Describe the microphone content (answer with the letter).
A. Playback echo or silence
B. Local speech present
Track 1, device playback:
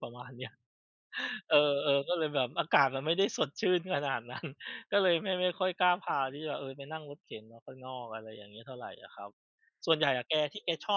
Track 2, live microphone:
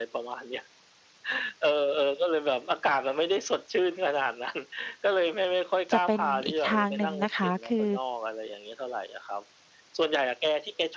B